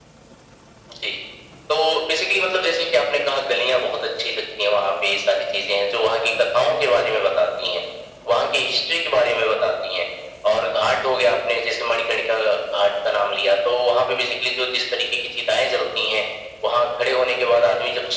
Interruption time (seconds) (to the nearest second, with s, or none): none